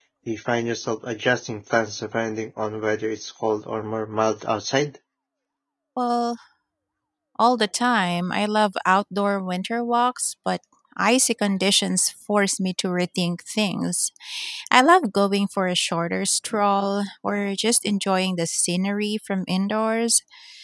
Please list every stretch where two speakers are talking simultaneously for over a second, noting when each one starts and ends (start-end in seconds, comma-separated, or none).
none